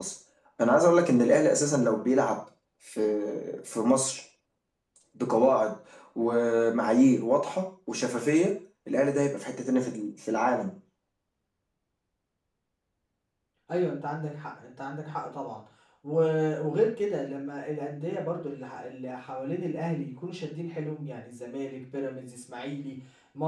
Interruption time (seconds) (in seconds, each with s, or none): none